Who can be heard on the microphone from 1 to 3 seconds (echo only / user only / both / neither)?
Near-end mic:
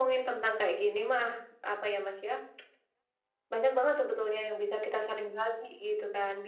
echo only